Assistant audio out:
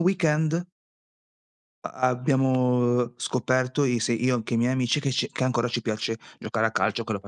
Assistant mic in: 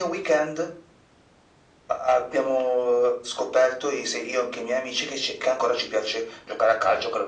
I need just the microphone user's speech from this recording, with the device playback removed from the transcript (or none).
none